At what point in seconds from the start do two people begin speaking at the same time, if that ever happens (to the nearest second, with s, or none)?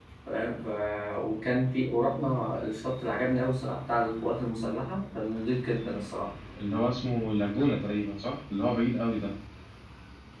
none